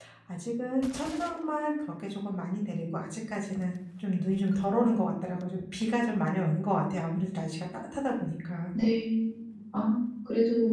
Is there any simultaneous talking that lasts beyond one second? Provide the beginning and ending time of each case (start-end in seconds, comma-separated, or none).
none